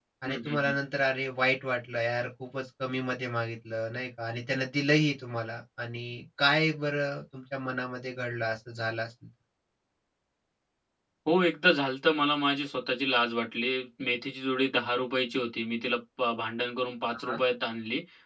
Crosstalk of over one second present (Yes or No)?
No